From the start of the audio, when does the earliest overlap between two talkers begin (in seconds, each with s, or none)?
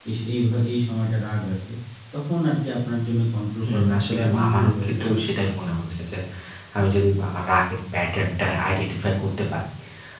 3.6 s